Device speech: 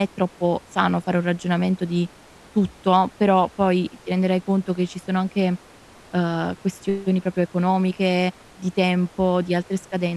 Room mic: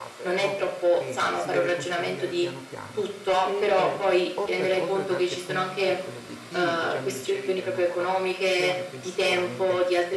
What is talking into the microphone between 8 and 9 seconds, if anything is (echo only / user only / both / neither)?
both